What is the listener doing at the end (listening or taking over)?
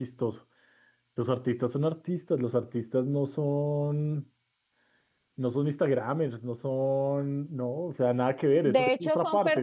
taking over